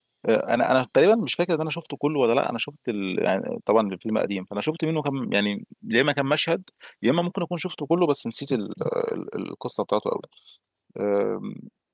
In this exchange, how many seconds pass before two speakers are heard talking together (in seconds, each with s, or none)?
none